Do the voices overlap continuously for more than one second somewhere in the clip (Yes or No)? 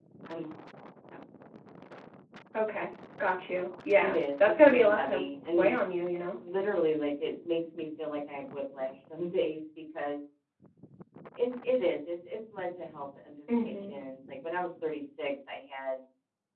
Yes